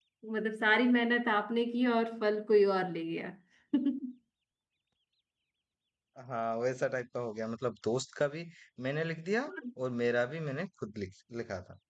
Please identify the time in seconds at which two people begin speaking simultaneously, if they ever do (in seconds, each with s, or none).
none